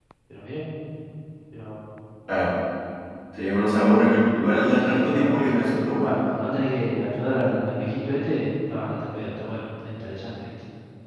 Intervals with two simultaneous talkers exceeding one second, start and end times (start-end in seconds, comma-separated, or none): 4.6-6.1